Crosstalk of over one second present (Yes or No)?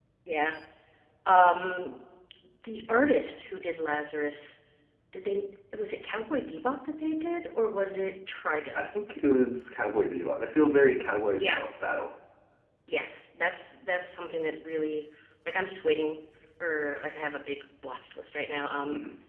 No